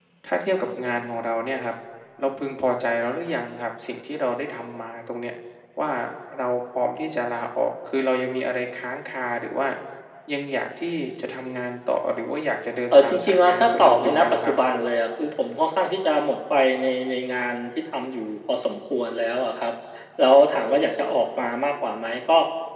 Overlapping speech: Yes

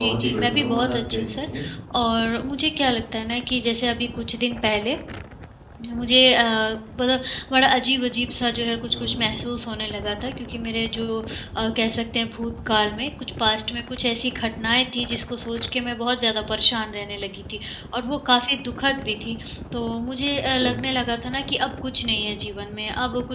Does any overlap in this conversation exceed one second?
Yes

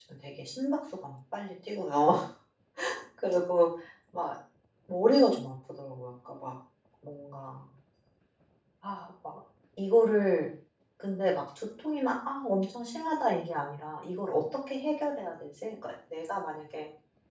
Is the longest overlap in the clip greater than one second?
No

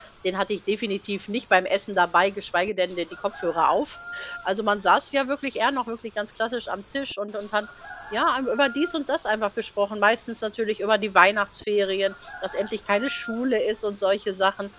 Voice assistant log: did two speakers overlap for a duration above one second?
No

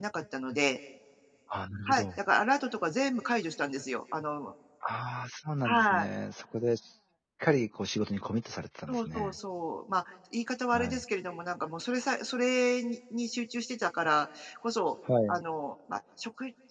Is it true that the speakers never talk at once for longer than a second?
Yes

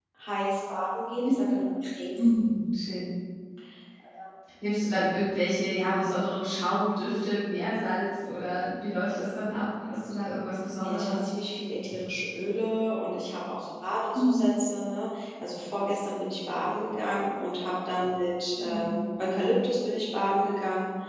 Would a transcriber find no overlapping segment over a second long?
Yes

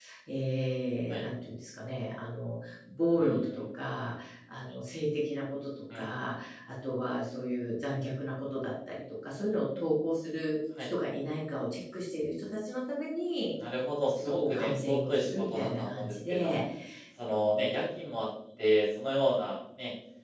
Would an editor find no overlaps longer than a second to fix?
No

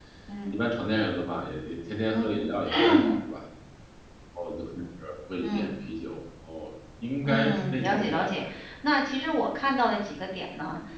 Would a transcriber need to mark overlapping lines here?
Yes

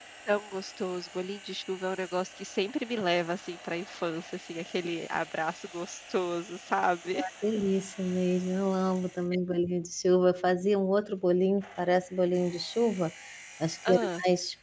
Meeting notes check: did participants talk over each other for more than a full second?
No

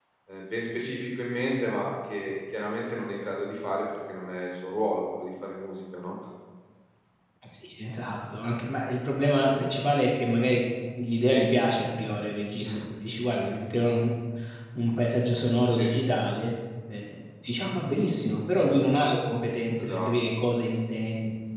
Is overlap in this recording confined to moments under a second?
Yes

